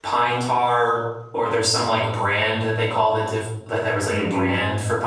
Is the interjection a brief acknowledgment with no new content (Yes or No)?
Yes